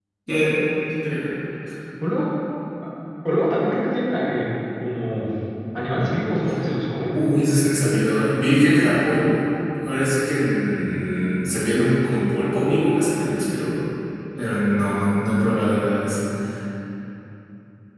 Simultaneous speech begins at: none

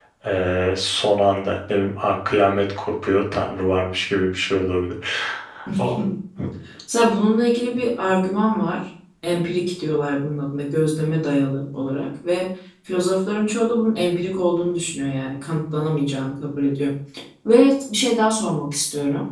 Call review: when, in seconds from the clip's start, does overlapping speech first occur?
none

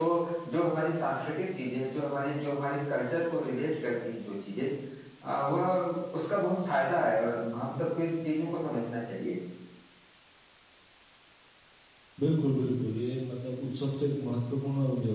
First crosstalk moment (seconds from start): none

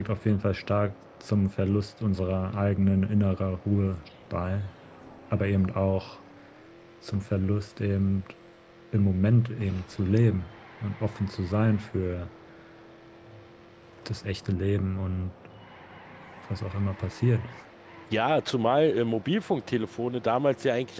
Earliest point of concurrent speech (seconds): none

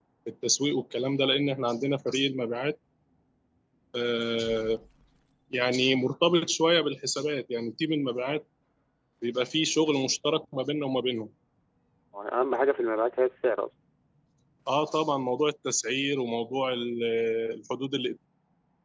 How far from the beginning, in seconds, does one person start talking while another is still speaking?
none

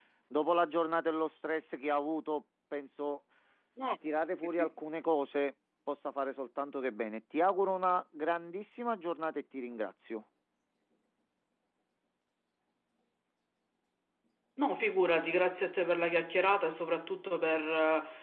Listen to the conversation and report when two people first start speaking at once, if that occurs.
none

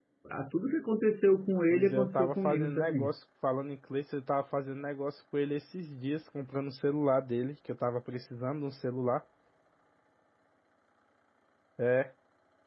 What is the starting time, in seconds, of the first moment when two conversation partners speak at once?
1.7 s

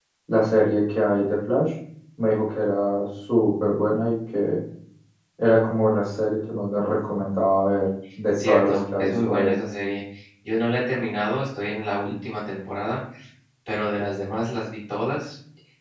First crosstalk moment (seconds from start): 8.3 s

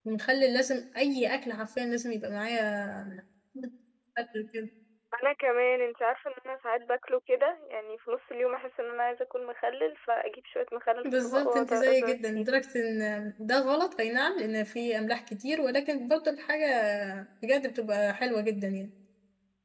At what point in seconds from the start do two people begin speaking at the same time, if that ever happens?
11.0 s

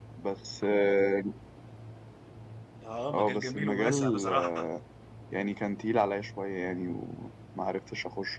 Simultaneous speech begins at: 3.1 s

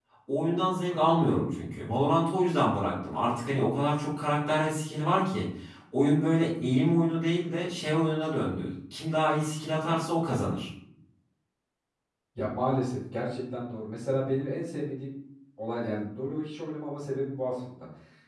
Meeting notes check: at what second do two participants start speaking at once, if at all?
none

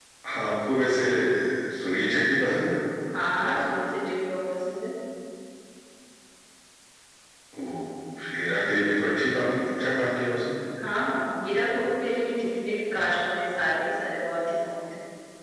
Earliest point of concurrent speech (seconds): none

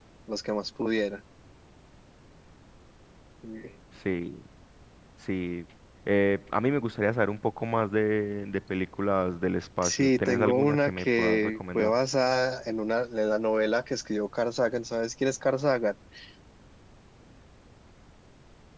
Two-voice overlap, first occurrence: 9.8 s

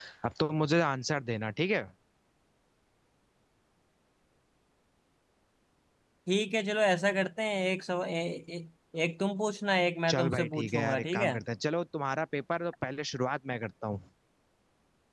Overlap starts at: 10.1 s

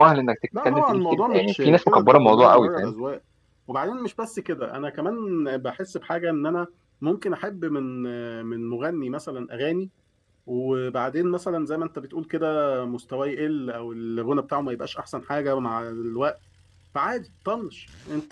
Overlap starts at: 0.6 s

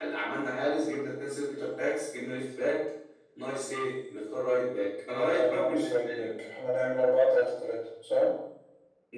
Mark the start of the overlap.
5.1 s

